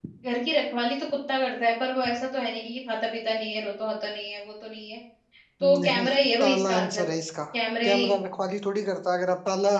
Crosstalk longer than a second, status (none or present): present